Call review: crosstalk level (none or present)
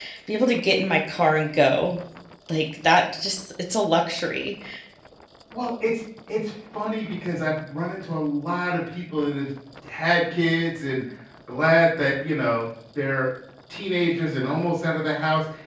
none